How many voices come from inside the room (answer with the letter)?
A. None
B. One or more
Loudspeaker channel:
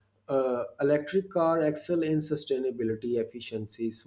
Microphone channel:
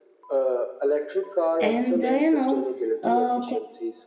B